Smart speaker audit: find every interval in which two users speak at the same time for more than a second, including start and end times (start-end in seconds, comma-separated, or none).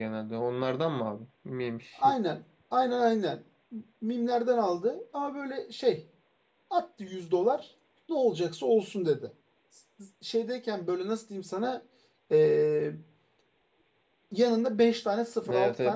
none